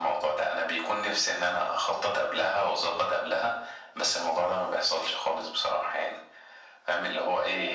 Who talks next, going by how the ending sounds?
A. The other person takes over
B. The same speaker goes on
B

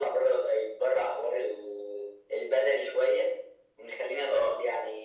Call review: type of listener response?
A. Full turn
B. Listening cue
B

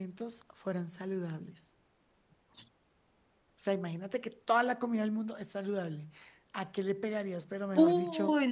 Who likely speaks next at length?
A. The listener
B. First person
A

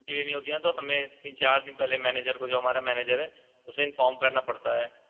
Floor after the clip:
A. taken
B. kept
B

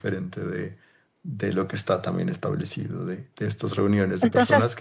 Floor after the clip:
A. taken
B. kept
B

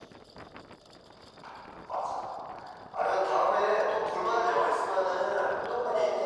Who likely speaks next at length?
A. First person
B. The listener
B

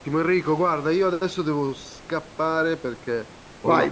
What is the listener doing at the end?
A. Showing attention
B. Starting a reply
B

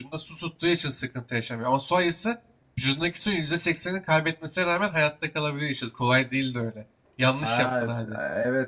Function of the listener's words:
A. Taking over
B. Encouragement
A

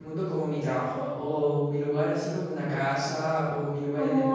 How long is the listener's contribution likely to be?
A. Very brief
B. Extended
B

